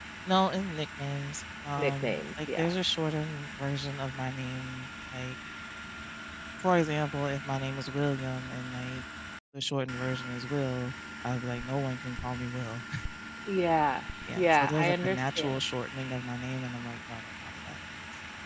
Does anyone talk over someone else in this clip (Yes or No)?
Yes